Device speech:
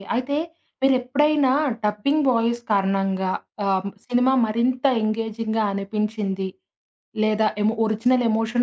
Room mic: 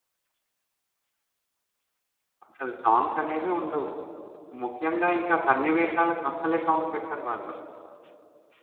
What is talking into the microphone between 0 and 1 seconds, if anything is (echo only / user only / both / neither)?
neither